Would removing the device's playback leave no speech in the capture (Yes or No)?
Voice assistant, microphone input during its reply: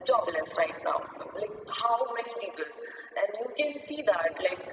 Yes